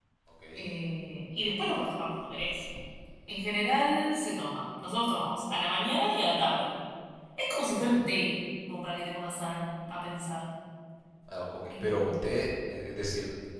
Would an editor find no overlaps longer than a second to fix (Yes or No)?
Yes